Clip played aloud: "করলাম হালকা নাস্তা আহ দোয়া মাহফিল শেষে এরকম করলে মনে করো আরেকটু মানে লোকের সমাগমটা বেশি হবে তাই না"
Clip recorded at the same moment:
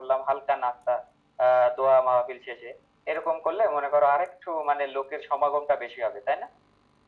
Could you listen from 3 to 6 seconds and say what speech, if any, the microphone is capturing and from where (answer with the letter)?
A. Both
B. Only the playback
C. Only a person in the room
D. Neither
B